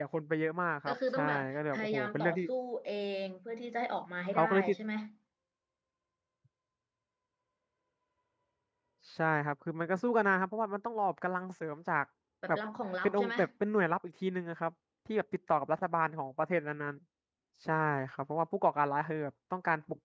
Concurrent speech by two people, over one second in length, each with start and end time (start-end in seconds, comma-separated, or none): 0.9-2.4